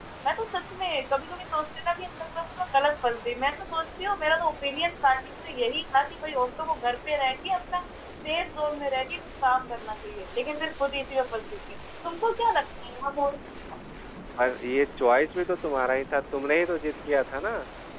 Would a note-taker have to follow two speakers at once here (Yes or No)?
No